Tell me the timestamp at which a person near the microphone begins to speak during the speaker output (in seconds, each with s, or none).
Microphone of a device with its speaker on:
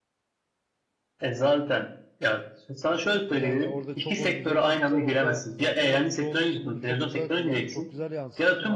3.3 s